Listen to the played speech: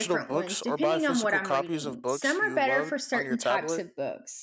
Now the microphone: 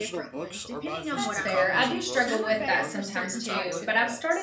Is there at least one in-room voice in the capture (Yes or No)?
Yes